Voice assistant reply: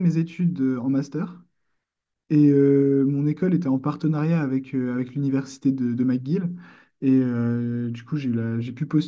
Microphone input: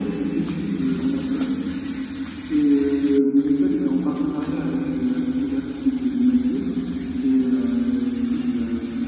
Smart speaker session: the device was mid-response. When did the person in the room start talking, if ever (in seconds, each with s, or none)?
none